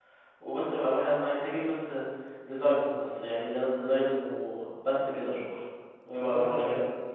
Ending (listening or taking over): taking over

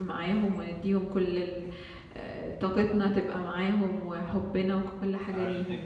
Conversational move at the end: taking over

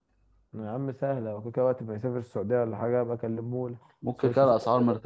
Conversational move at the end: taking over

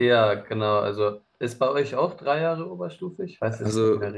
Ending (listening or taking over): taking over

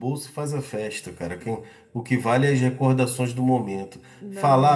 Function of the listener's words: listening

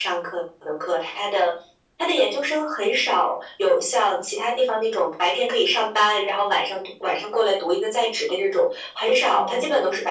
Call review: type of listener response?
listening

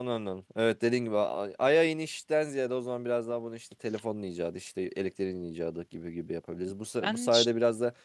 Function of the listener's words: listening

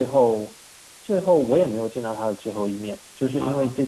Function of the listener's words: listening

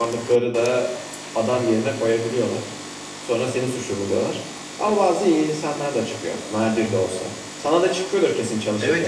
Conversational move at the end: taking over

